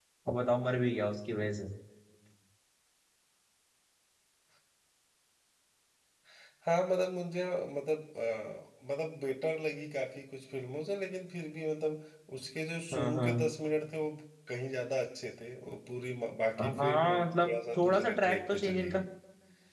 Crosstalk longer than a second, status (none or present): present